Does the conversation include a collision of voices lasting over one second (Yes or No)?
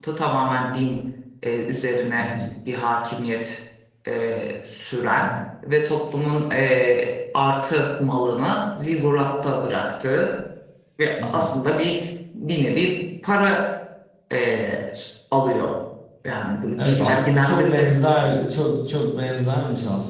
Yes